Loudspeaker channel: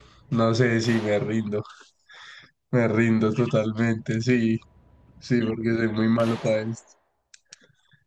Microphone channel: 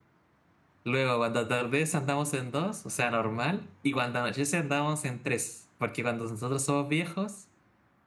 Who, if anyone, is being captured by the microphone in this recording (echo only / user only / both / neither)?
user only